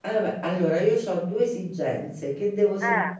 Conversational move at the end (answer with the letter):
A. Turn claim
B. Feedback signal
B